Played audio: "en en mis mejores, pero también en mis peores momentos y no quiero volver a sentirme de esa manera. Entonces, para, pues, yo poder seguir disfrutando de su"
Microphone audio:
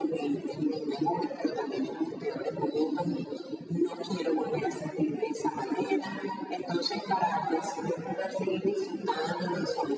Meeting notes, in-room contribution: none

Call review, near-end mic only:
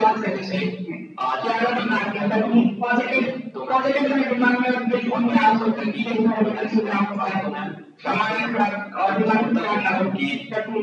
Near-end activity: none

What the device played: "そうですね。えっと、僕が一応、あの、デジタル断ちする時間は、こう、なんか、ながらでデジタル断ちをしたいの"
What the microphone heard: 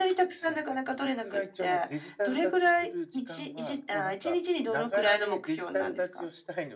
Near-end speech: present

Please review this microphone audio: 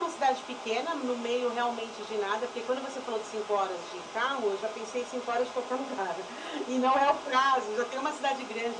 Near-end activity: none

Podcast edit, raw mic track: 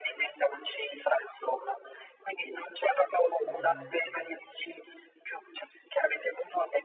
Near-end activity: present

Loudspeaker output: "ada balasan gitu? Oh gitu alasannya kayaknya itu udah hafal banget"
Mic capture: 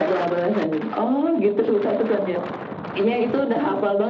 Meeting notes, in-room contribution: none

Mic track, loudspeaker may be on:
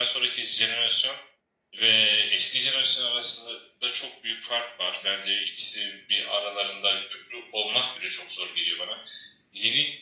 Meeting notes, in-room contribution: none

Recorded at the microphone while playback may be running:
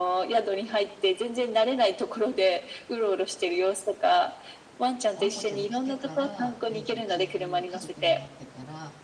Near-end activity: present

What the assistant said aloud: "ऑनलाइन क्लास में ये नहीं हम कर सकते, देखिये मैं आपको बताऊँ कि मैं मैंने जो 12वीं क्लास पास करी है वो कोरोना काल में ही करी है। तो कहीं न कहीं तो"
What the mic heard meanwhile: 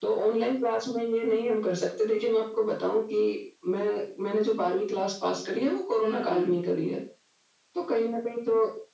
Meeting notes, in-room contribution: present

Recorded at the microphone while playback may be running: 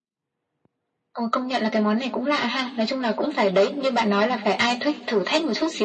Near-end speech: none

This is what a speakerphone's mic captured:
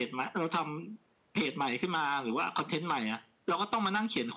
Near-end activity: none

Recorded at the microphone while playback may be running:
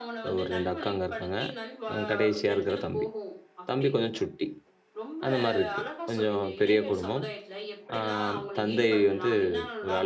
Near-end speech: present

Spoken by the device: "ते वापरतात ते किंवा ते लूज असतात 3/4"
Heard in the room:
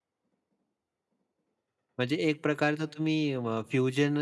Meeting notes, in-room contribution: present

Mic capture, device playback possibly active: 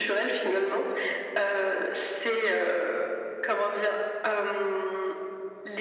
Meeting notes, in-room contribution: none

